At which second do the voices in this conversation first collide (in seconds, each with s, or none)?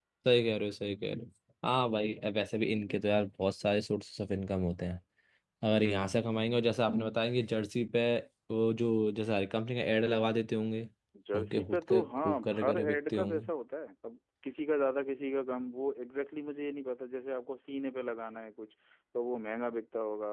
11.4 s